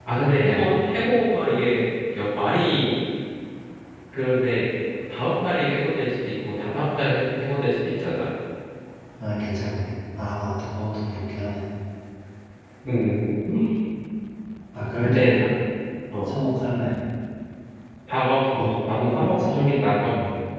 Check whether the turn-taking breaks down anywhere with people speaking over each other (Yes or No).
Yes